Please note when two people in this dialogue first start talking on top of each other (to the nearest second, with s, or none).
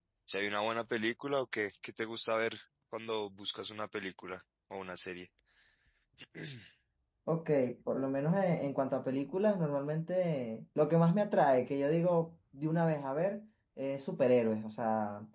none